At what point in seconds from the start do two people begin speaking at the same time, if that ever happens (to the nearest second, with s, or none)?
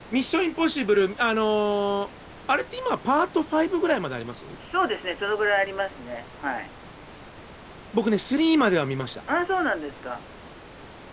none